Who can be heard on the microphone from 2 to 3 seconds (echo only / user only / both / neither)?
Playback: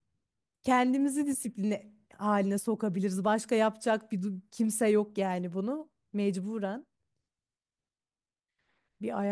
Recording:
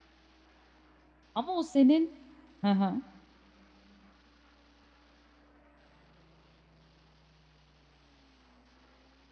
user only